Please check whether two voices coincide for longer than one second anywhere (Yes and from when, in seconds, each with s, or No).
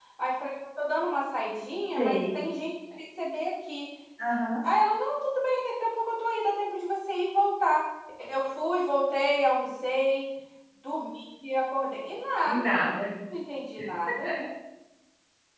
No